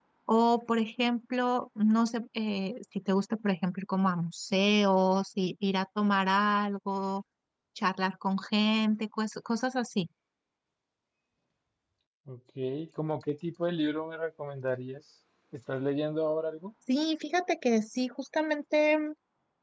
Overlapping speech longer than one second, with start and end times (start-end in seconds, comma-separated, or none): none